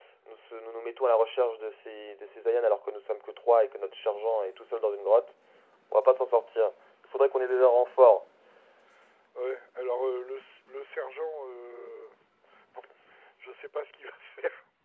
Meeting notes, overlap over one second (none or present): none